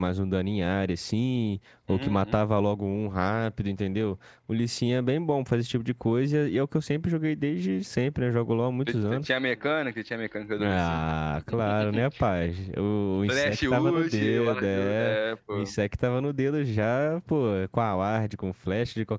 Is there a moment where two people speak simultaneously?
Yes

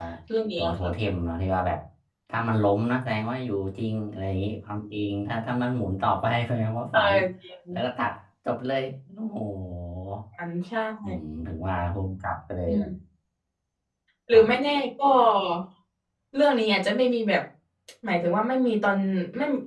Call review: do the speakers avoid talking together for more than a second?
Yes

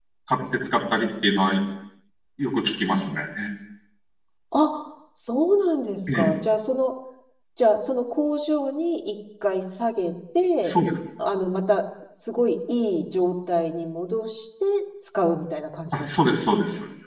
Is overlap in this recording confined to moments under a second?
Yes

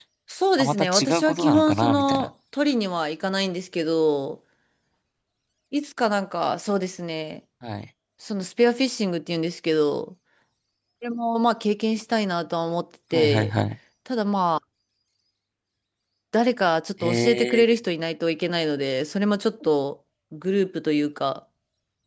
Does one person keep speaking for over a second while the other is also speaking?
Yes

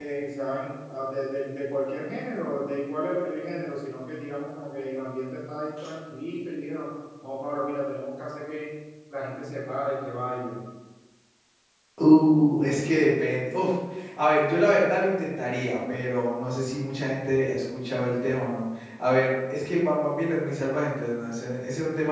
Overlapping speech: No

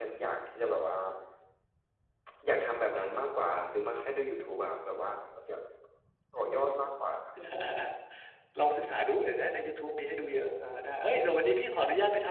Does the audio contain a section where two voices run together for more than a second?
No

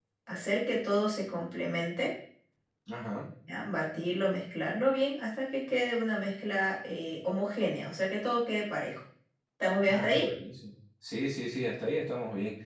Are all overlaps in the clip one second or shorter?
Yes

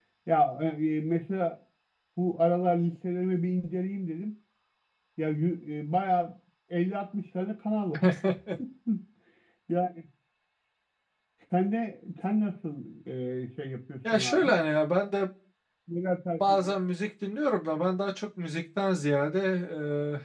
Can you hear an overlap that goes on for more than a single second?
No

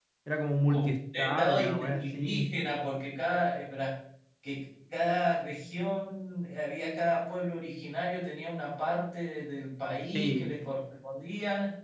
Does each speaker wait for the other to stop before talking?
No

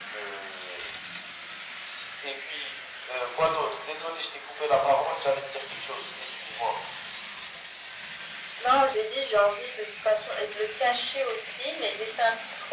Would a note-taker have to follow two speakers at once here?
No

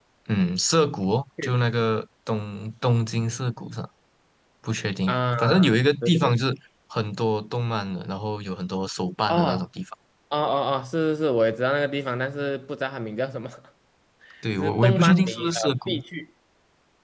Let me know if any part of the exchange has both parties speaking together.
Yes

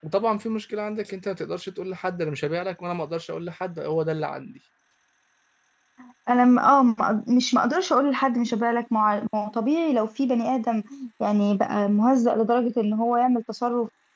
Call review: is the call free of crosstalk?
Yes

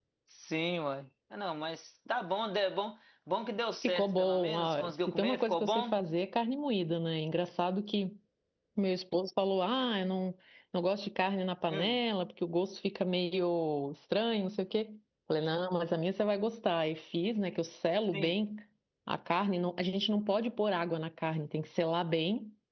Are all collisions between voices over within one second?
No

